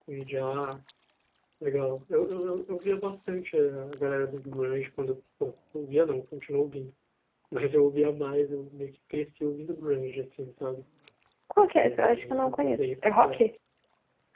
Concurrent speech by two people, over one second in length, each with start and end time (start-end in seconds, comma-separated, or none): 11.6-13.4